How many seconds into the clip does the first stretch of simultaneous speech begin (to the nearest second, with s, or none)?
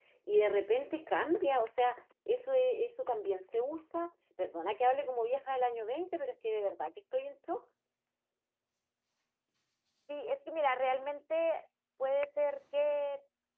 none